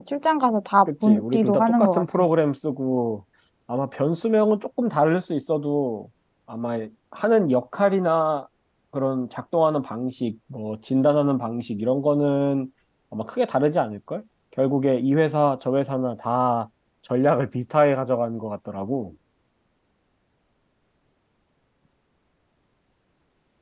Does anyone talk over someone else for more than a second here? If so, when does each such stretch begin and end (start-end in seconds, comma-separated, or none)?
0.9-2.2